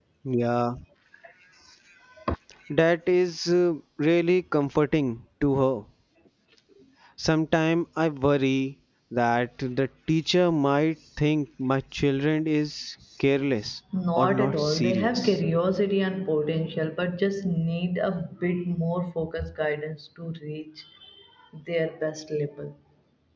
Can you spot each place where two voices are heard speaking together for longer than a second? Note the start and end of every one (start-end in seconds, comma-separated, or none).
14.2-15.4